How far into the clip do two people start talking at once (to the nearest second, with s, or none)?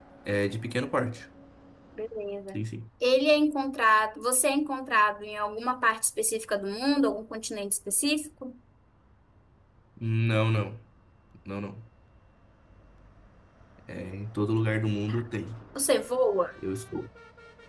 none